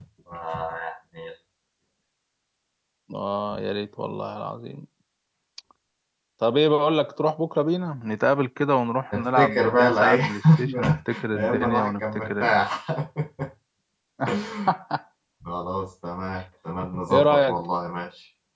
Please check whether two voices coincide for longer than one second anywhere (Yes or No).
Yes